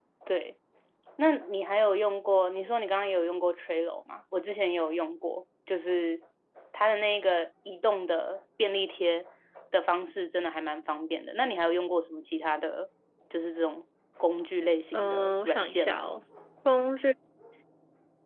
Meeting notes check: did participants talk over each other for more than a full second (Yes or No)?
Yes